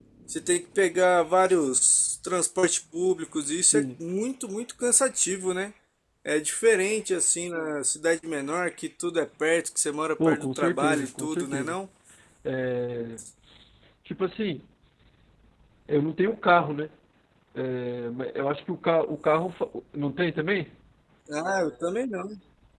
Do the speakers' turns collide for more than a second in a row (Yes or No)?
Yes